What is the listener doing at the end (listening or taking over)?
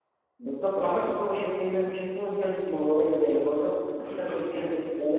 listening